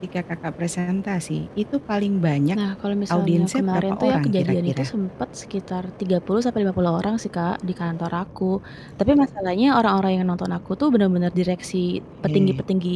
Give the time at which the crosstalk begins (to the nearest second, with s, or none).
3 s